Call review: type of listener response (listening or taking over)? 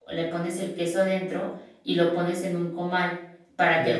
listening